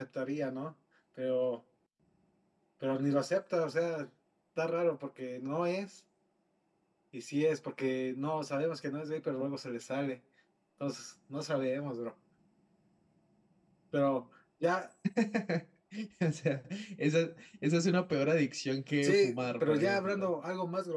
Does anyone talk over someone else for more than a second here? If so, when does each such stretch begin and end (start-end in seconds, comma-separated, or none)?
19.0-20.3